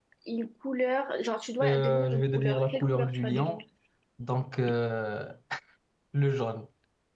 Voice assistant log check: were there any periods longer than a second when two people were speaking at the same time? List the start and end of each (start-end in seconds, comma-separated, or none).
1.6-3.6